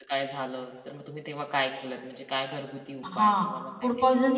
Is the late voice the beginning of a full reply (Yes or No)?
Yes